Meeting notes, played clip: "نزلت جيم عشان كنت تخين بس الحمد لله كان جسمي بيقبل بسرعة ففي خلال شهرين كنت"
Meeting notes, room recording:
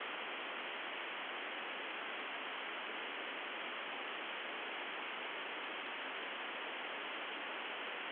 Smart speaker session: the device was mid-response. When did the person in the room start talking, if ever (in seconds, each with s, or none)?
none